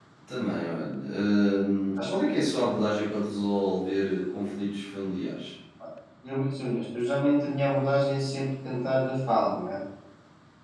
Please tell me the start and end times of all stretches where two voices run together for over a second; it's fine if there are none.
none

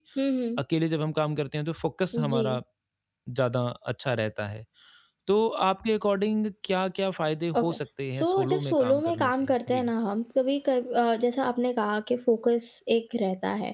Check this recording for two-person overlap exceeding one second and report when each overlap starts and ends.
8.2-9.9

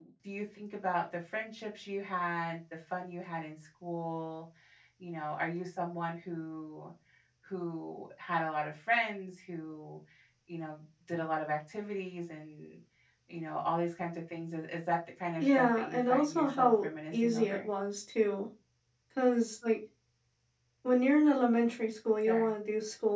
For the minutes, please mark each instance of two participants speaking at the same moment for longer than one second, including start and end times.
15.4-17.7

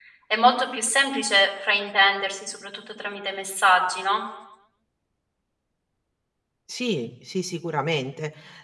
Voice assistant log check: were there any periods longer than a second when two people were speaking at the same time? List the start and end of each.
none

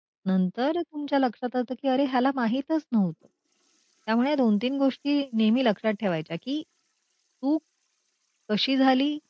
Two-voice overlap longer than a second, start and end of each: none

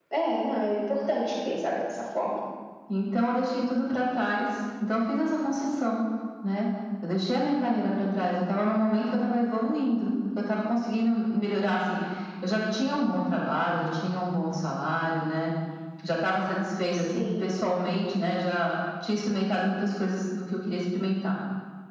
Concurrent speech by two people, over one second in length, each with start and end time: none

